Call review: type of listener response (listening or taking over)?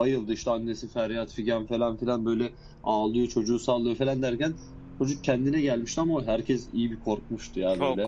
taking over